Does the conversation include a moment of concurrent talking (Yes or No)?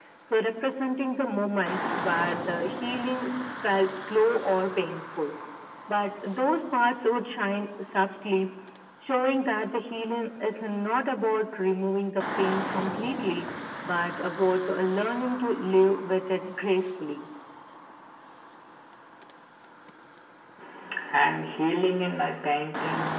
No